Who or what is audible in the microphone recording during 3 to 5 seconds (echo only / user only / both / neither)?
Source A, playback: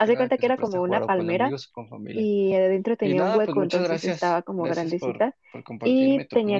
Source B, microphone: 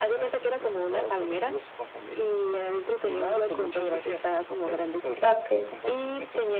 echo only